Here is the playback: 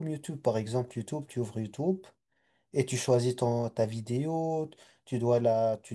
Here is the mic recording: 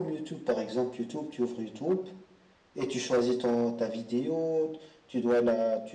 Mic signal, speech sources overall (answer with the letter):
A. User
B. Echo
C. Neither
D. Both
B